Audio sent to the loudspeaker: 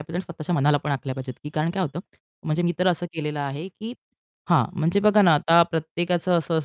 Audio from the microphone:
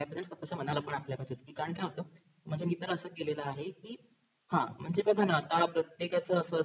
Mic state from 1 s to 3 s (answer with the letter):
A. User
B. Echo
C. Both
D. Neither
B